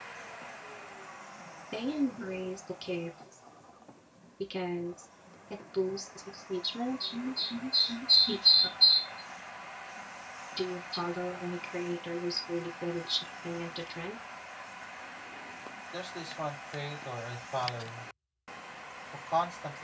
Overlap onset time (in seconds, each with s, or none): none